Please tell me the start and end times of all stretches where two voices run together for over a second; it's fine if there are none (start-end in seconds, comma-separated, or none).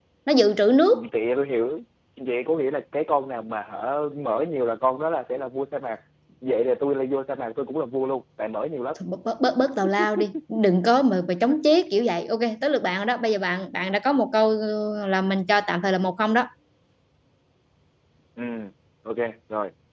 none